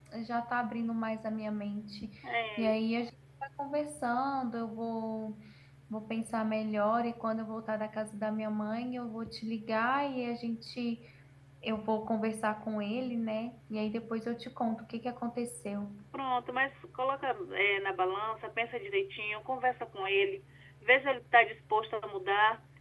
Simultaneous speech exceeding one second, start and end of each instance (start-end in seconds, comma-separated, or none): none